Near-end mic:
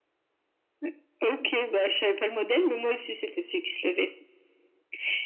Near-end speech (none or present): none